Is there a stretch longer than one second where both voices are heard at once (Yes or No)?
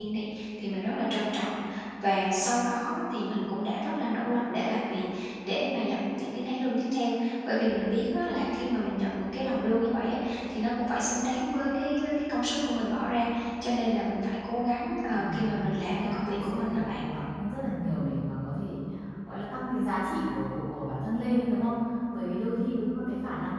Yes